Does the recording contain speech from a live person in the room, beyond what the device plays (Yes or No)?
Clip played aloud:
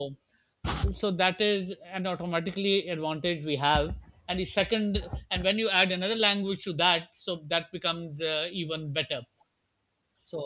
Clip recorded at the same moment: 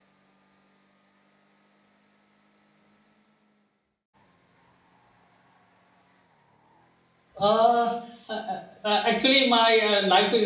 Yes